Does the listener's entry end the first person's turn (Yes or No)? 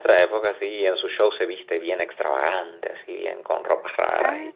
Yes